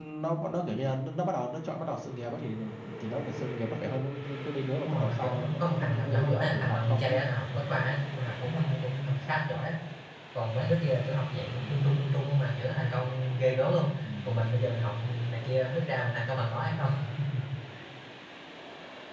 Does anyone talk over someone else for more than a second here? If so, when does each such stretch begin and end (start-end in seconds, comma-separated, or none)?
4.9-7.2